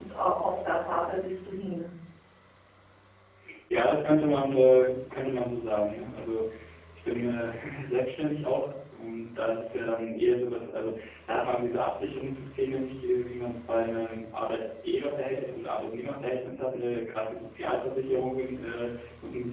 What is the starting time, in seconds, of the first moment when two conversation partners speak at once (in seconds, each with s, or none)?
none